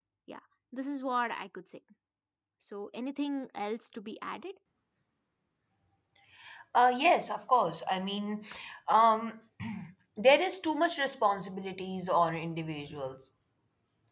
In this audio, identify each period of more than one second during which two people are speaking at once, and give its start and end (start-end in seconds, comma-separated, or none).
none